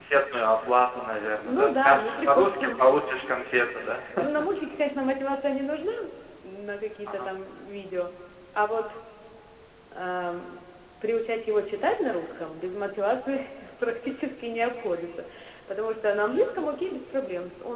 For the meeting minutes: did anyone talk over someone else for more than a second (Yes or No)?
Yes